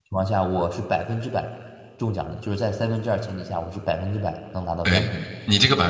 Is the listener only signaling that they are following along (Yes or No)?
No